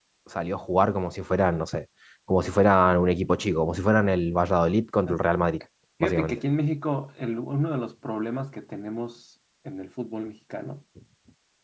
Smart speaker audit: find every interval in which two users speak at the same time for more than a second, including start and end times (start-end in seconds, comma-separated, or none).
none